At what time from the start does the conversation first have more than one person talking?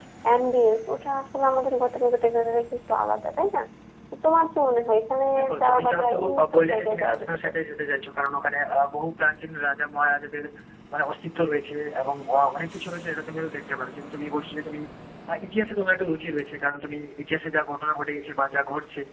5.6 s

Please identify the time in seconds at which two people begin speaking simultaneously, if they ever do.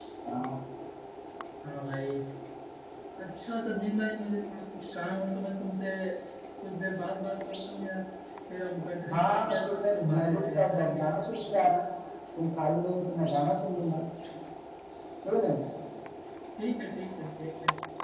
9.1 s

